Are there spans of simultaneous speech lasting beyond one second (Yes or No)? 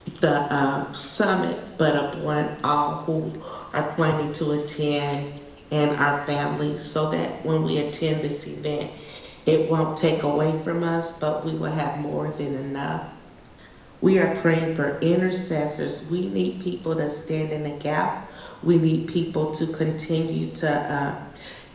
No